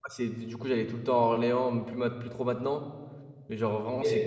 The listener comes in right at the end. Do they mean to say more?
No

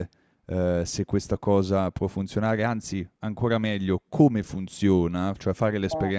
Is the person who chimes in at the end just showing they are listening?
Yes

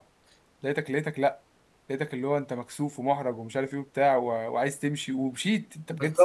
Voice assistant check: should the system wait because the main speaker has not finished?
No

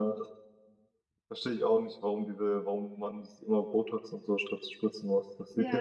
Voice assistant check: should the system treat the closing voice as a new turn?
Yes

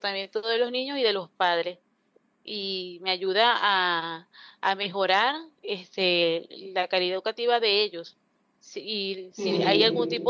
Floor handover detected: No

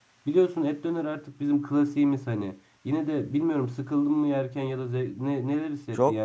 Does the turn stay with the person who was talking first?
No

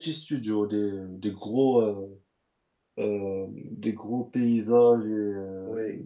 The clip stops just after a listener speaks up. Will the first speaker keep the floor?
Yes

